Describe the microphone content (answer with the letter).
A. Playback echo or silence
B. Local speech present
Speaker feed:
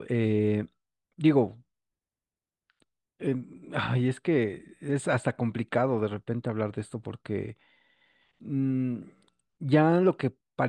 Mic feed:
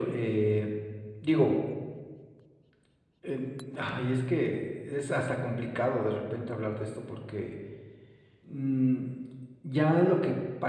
A